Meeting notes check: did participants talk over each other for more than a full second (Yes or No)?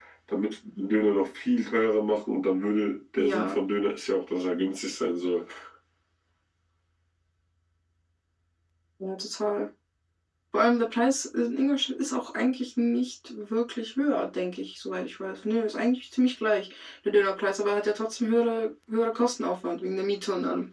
No